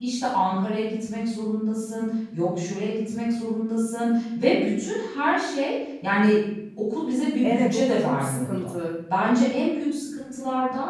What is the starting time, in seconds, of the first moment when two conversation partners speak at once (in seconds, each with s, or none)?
7.4 s